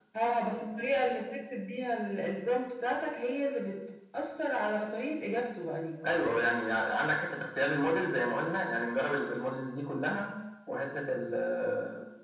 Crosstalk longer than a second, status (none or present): none